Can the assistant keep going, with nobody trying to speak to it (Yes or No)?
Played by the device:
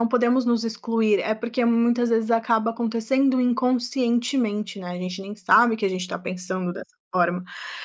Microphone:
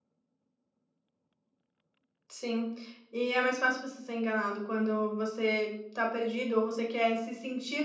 No